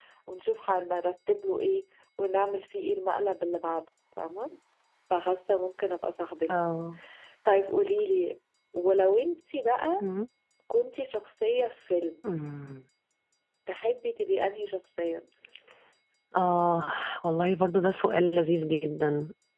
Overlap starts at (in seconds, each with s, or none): none